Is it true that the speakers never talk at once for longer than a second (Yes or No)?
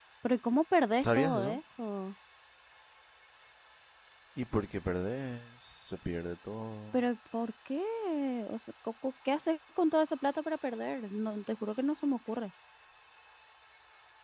Yes